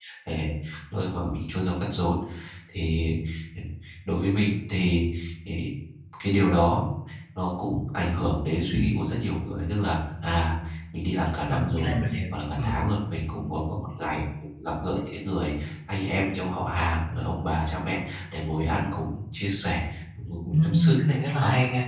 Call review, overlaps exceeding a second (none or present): none